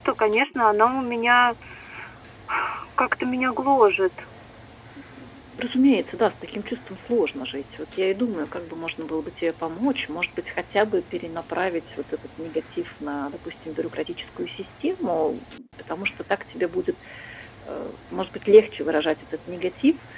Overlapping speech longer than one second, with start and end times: none

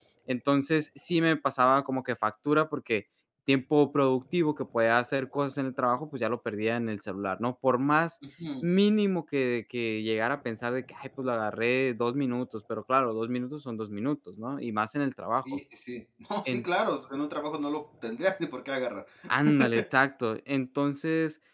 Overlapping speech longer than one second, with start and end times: none

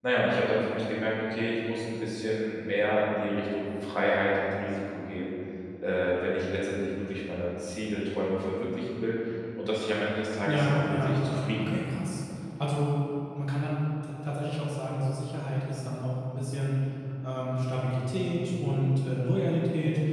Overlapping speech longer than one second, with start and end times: 10.5-11.8

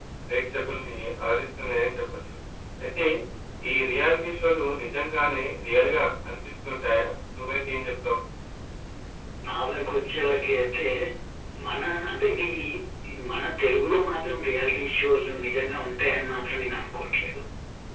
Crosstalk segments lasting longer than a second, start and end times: none

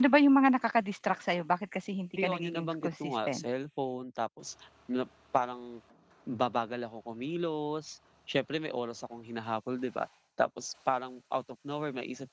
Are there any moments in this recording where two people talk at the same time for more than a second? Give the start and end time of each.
2.2-3.4

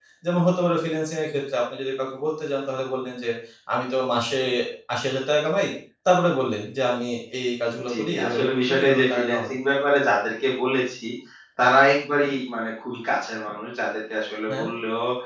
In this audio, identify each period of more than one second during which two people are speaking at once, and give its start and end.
7.9-9.4

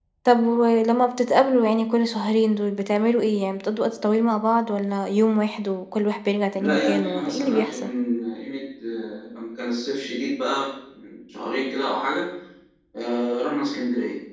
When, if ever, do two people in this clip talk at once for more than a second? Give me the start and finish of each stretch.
6.5-7.9

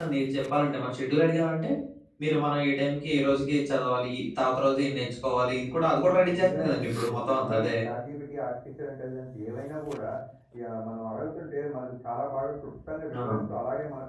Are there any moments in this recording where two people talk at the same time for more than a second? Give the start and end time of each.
6.3-7.7

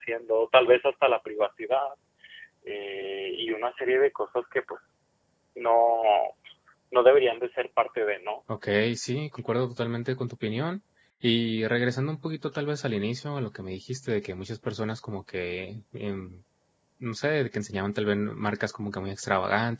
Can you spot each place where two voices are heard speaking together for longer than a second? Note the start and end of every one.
none

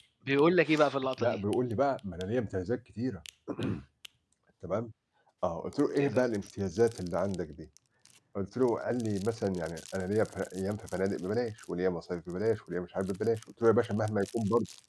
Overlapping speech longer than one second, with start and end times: none

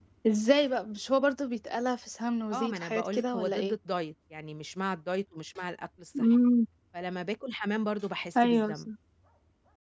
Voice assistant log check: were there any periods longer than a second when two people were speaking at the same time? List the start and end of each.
2.5-3.8

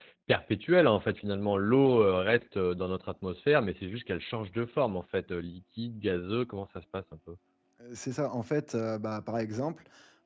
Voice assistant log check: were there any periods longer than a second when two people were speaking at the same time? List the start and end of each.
none

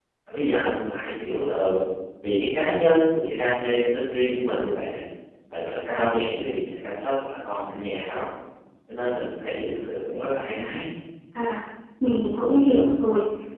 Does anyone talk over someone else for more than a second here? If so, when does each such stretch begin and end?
none

